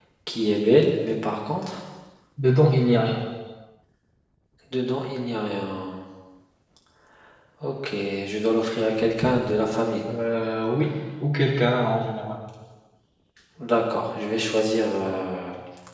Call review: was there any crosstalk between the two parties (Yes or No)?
No